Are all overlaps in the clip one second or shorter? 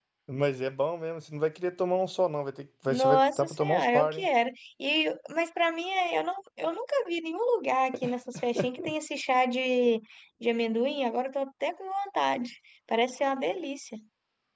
No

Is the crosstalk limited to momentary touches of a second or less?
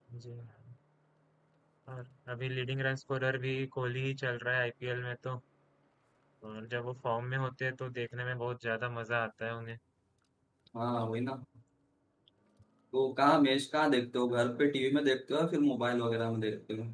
Yes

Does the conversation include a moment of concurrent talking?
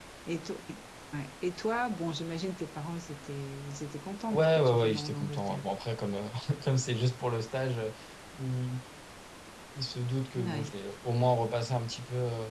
Yes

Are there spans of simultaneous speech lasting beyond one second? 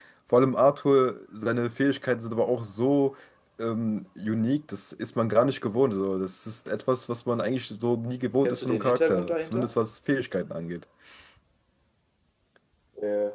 Yes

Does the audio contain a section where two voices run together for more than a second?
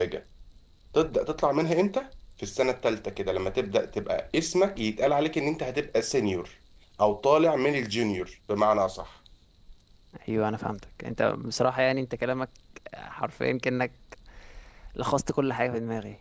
No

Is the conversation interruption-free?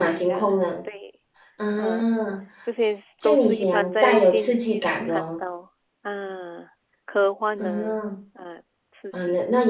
No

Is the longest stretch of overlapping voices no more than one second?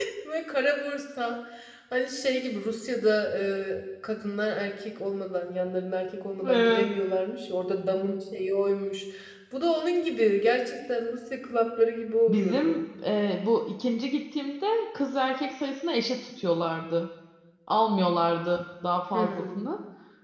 Yes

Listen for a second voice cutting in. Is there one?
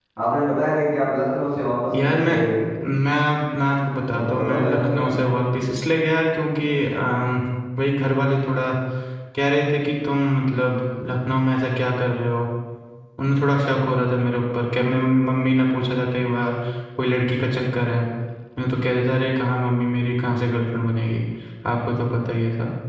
Yes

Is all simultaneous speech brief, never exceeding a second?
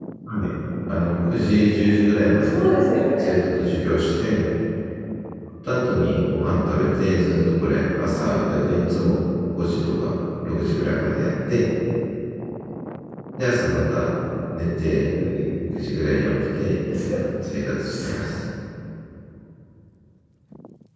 Yes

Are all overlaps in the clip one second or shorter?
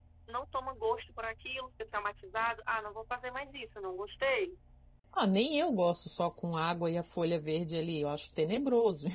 Yes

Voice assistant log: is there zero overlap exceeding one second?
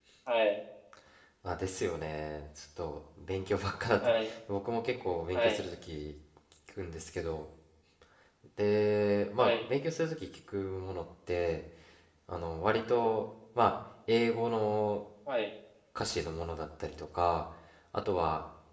Yes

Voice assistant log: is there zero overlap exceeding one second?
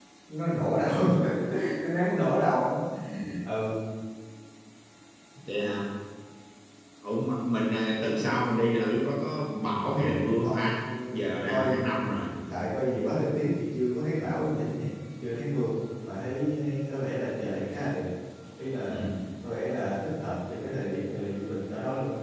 No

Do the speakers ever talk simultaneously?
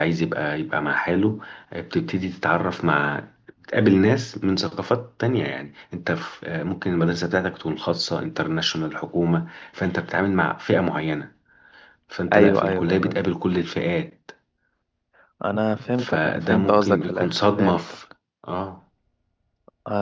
Yes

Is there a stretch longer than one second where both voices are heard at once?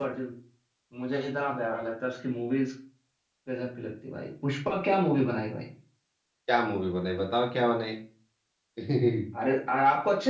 No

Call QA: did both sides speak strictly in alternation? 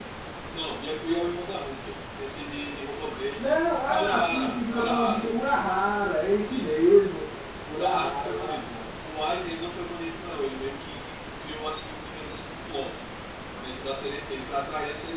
No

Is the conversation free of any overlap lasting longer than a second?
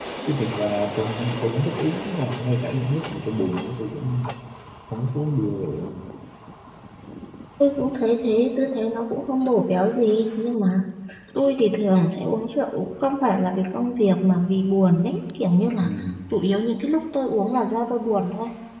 Yes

